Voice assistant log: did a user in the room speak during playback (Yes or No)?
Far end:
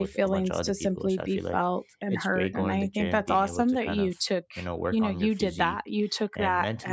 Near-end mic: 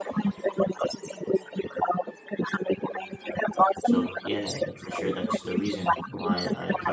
Yes